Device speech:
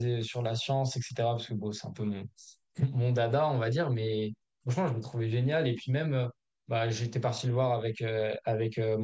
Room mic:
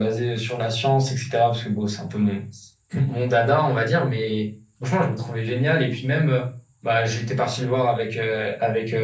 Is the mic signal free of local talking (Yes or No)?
Yes